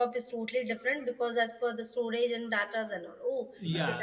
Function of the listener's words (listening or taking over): taking over